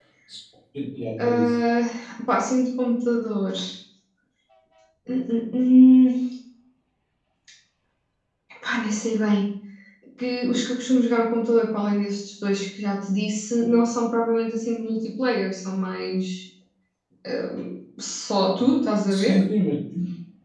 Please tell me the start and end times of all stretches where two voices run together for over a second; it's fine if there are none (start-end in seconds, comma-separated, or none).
none